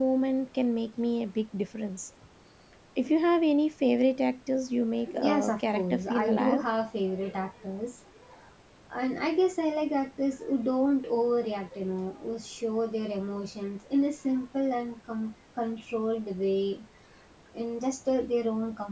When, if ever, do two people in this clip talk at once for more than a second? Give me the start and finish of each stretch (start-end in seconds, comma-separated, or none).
5.2-6.6